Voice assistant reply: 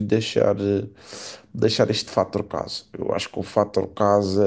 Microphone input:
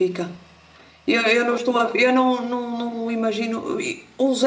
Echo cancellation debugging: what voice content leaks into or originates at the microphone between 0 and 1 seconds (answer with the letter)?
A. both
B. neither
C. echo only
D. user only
D